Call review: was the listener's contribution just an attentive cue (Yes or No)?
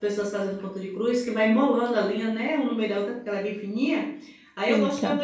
Yes